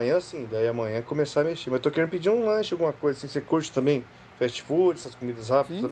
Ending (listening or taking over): taking over